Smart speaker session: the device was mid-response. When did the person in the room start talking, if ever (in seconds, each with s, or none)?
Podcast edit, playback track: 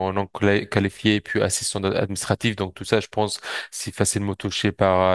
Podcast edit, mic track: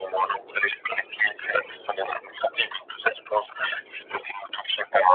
none